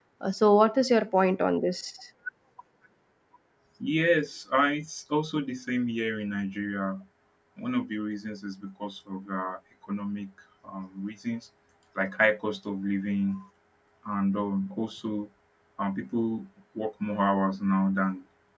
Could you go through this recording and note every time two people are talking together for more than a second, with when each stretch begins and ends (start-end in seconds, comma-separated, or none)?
none